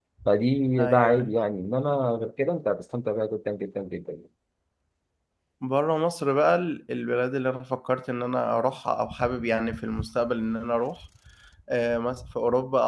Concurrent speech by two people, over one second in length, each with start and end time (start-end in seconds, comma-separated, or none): none